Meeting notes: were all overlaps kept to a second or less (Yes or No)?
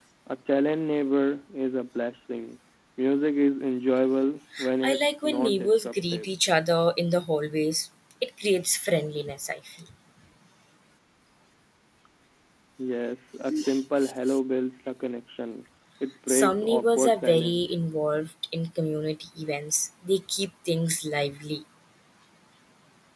No